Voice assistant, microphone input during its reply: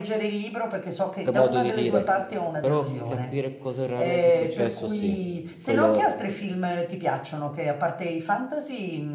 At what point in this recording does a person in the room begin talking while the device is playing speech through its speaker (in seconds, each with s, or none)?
1.2 s